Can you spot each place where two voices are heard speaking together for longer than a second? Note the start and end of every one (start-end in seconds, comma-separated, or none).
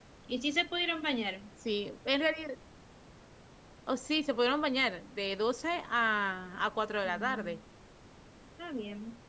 none